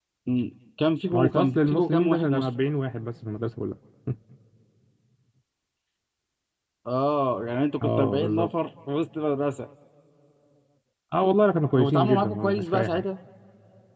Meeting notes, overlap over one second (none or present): present